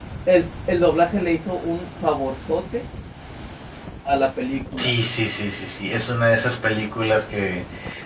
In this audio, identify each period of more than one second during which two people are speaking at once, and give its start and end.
none

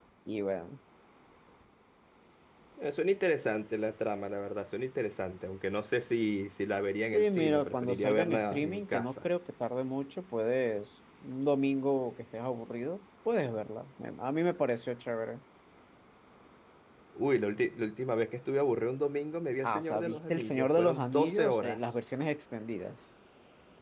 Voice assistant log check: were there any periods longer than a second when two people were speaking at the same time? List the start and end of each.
7.1-9.2, 19.6-21.8

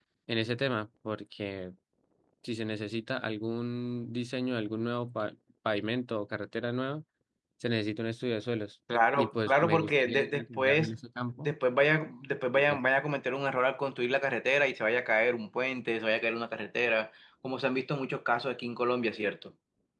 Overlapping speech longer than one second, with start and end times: 9.2-10.9

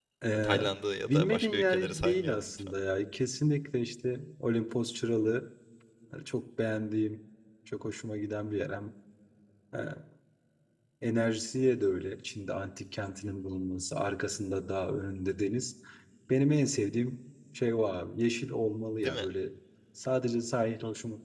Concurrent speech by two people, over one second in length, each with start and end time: 1.1-2.7

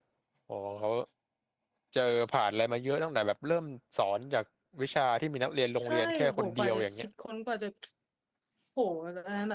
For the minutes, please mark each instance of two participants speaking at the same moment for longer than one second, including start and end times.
5.8-7.1

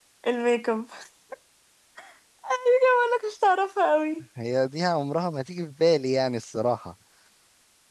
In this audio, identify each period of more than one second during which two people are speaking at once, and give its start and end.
none

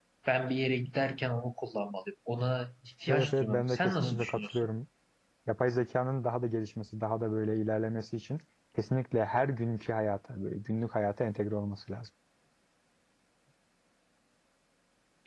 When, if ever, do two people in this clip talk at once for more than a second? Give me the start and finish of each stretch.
3.1-4.7

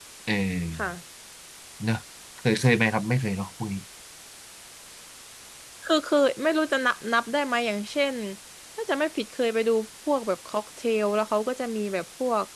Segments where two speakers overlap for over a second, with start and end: none

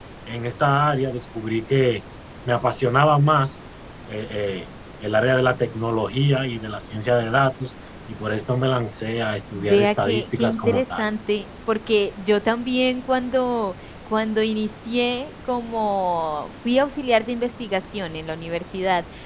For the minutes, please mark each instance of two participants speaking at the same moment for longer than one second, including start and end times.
9.5-11.1

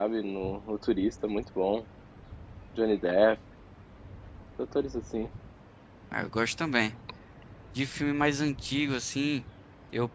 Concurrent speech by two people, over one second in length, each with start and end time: none

